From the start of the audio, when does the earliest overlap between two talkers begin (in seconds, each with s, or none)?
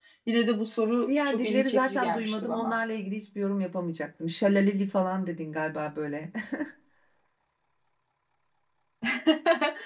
1.1 s